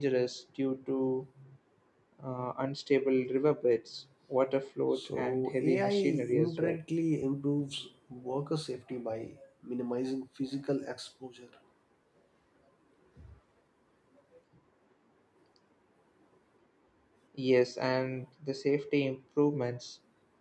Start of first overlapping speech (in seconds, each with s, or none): 5.0 s